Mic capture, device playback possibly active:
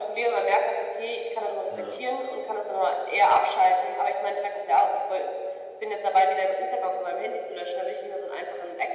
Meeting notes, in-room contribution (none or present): present